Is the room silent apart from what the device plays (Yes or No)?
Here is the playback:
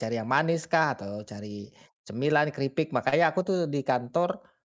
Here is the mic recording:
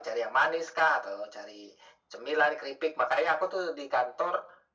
Yes